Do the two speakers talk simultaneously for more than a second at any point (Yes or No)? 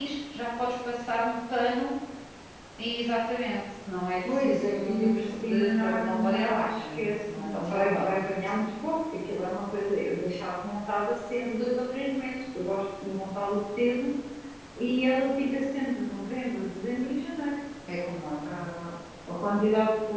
Yes